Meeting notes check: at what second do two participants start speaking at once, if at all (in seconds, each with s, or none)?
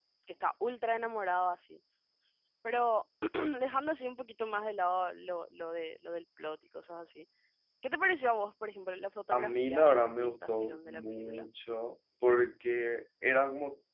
9.3 s